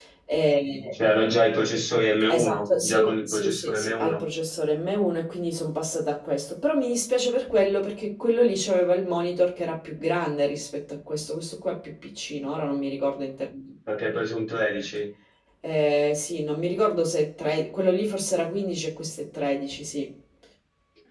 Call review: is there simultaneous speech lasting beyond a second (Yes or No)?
Yes